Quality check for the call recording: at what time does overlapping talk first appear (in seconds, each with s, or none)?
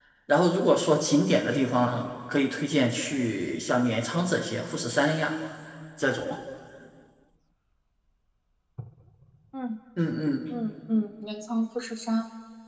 none